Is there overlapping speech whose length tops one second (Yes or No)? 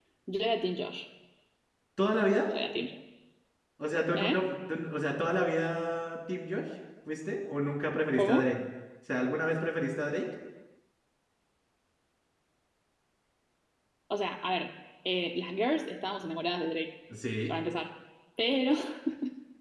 No